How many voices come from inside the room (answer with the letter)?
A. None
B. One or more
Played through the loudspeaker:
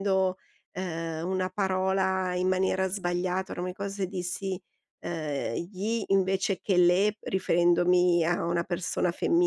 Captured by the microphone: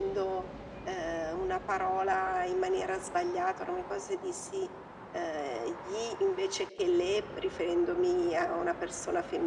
A